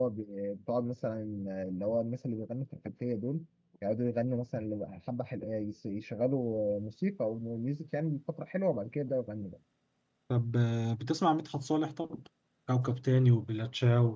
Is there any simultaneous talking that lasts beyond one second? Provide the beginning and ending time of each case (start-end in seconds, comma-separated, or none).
none